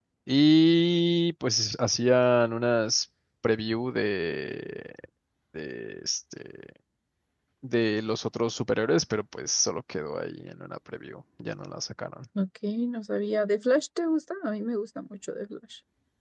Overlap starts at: none

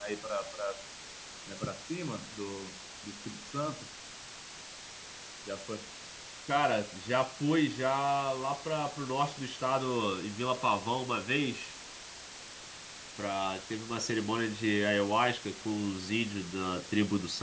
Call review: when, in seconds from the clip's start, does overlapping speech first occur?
none

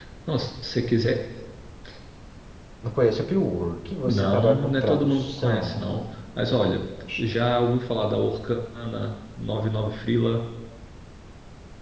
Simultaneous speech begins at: 4.0 s

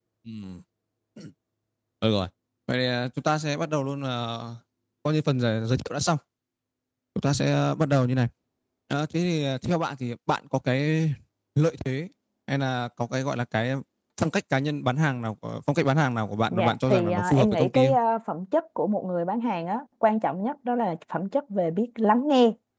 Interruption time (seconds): 16.5 s

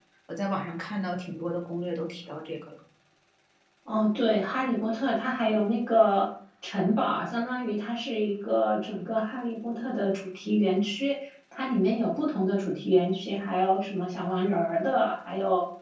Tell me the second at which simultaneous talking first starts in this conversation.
none

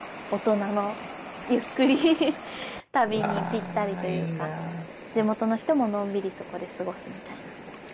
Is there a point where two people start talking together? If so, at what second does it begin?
3.0 s

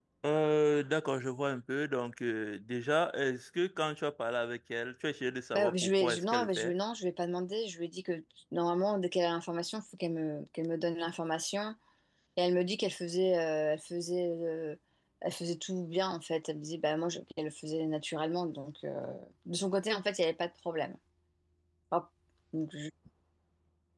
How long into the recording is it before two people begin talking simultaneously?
5.5 s

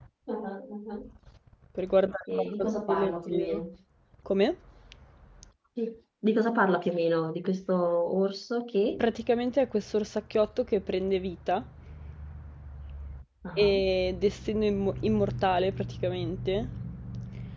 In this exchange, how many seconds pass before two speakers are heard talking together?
2.3 s

